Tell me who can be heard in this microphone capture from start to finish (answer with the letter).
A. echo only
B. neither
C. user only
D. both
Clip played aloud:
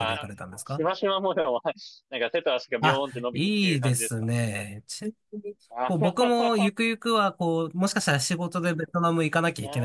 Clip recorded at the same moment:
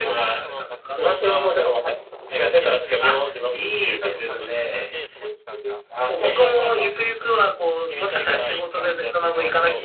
D